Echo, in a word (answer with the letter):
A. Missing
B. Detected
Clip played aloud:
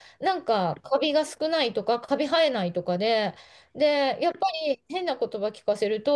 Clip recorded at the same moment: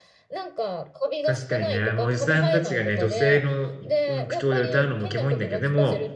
B